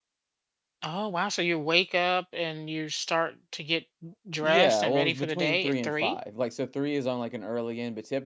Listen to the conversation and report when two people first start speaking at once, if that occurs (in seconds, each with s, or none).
4.4 s